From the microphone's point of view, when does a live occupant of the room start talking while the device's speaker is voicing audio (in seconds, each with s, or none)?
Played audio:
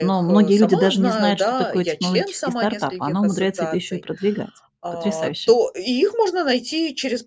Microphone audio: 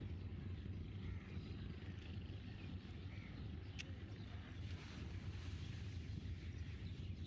none